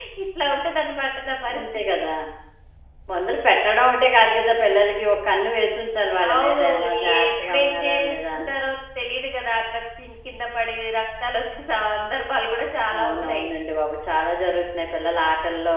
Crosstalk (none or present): present